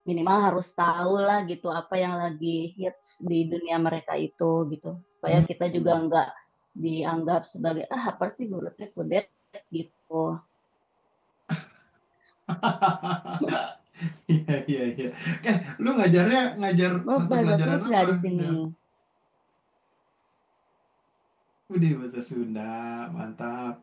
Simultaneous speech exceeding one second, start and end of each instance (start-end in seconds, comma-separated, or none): 17.0-18.6